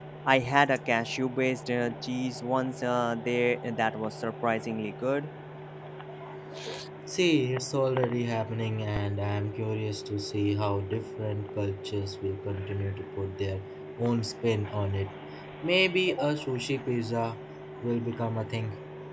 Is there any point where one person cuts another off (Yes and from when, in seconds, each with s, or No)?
No